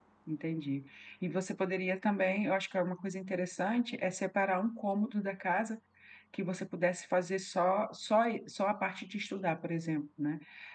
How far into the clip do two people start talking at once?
none

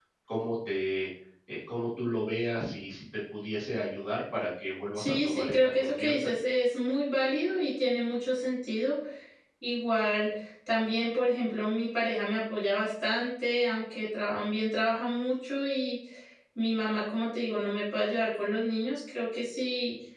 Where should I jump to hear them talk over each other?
5 s

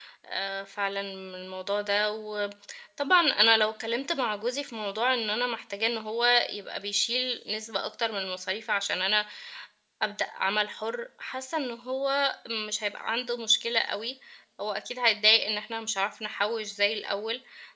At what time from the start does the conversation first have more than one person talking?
none

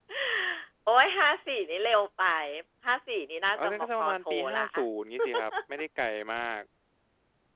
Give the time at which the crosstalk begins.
4 s

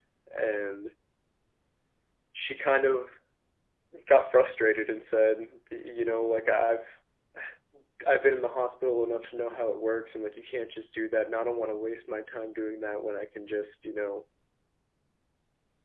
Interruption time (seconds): none

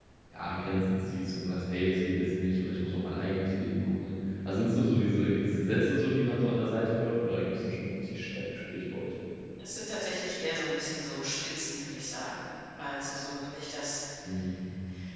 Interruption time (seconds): none

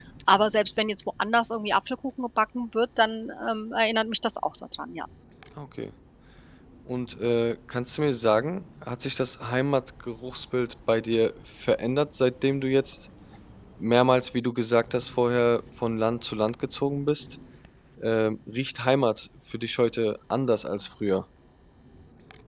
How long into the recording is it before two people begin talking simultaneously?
none

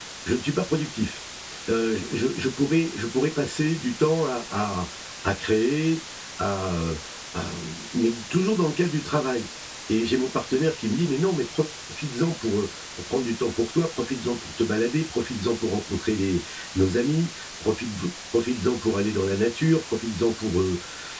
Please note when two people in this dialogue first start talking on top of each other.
none

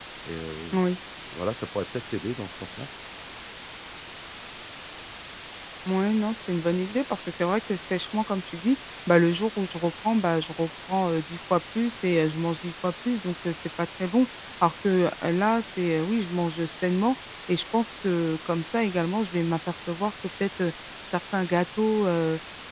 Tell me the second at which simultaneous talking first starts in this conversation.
none

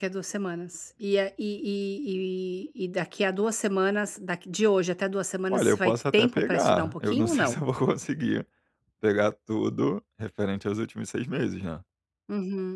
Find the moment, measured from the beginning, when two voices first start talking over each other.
5 s

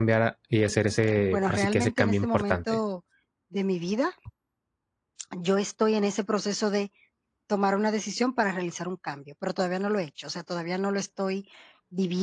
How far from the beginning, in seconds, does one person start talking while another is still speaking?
1 s

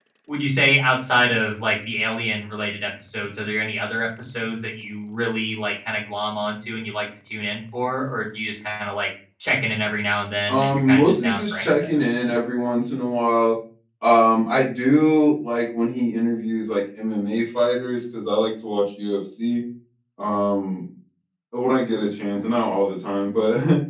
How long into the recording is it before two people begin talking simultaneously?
10 s

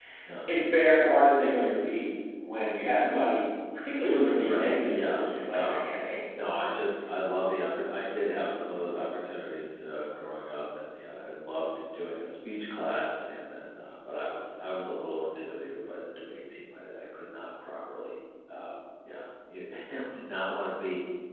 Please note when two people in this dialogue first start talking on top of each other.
4 s

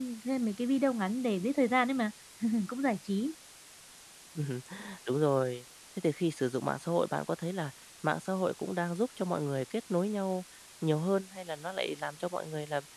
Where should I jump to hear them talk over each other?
none

